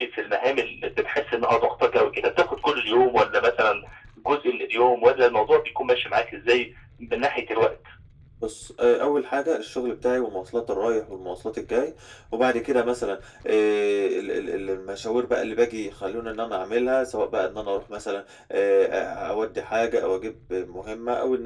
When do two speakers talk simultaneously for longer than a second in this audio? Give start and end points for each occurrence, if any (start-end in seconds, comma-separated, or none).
none